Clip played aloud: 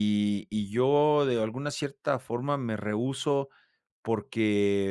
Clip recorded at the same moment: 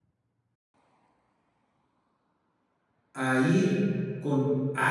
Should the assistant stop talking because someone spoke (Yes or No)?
Yes